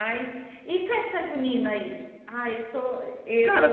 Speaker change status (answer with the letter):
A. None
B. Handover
A